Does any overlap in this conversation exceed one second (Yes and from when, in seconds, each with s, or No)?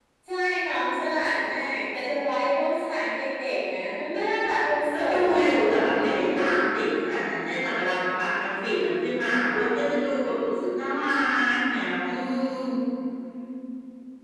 Yes, from 4.9 s